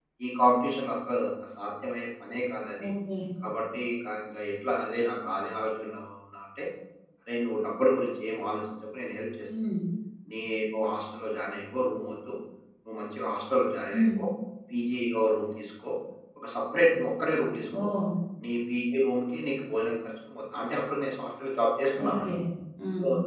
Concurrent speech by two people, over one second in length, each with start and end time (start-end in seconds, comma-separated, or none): none